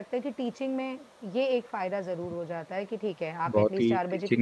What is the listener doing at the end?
taking over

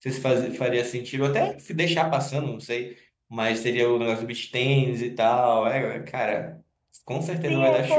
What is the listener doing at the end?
taking over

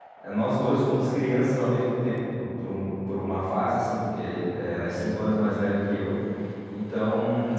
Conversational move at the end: listening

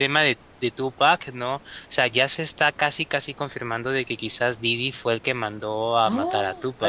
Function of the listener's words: taking over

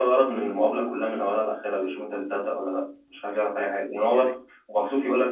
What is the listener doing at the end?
listening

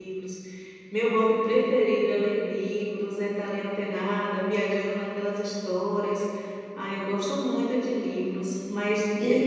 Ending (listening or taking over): listening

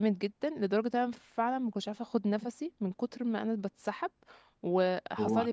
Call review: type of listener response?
listening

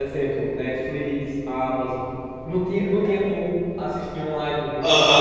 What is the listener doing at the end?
taking over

